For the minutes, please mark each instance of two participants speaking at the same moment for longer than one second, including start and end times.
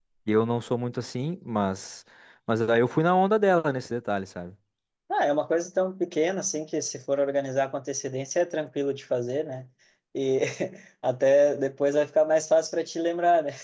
none

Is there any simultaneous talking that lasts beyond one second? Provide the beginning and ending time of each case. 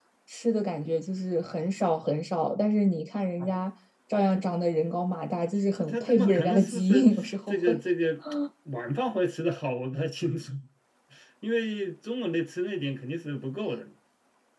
5.8-7.1

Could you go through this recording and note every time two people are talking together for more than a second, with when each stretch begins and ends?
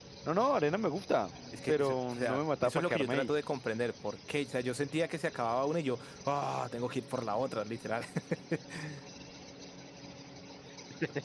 1.7-3.3

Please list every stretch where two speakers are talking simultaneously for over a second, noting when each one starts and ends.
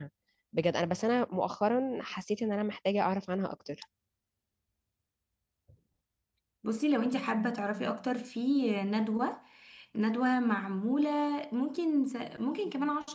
none

